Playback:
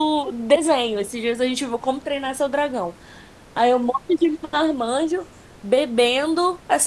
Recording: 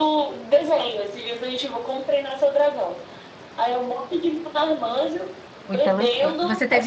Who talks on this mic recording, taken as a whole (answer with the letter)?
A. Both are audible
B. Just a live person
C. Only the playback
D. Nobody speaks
A